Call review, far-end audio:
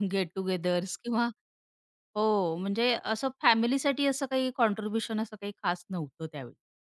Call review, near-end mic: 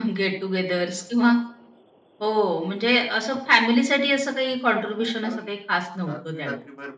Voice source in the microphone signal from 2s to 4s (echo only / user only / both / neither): echo only